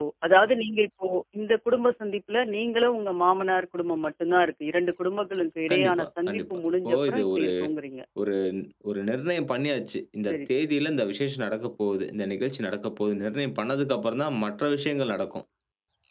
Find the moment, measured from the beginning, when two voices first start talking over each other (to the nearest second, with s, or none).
6 s